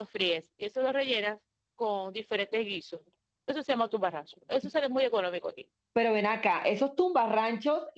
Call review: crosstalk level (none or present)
none